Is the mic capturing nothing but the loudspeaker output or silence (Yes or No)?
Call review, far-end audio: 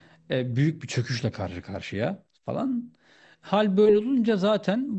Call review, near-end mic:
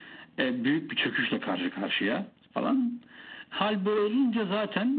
Yes